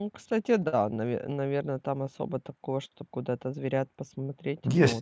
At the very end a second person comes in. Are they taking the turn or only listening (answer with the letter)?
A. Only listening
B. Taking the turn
B